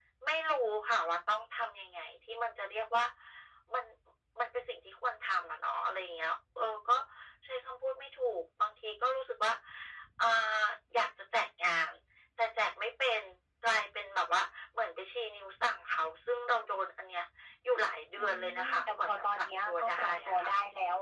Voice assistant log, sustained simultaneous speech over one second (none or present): present